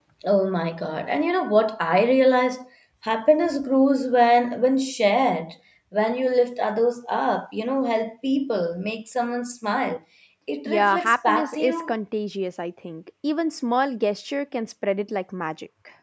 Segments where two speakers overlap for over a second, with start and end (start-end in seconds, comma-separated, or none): 10.7-11.9